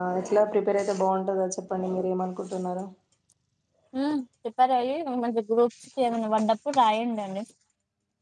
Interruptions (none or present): none